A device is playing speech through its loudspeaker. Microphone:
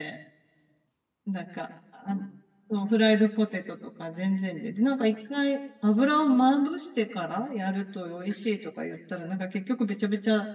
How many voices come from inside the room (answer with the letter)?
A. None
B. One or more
B